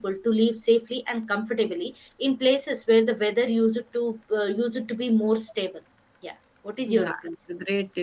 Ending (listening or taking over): taking over